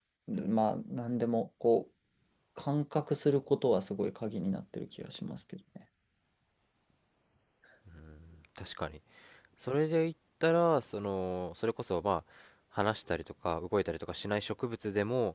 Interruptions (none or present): none